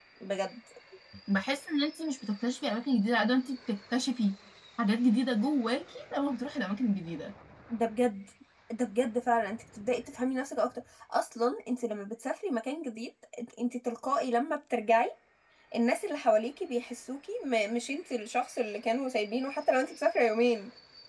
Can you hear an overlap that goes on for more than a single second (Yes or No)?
No